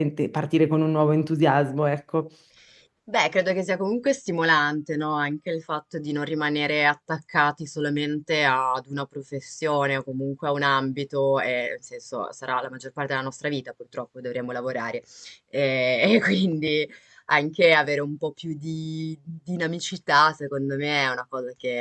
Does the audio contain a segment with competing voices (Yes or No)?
No